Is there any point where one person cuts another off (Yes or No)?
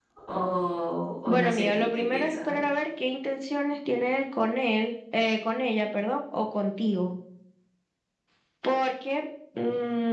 Yes